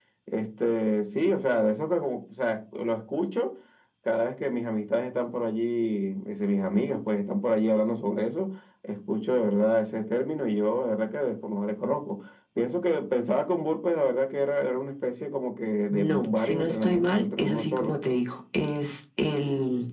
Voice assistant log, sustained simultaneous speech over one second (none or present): present